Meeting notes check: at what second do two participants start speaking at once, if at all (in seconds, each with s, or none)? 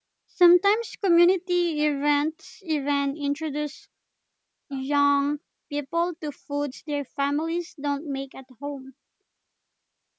none